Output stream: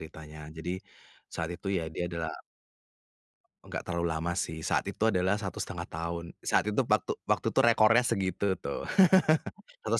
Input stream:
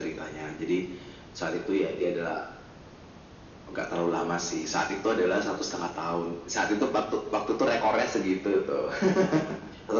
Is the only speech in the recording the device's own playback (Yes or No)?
Yes